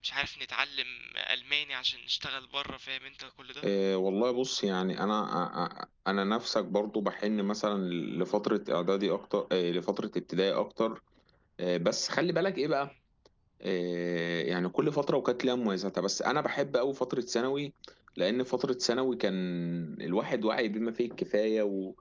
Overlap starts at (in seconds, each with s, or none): none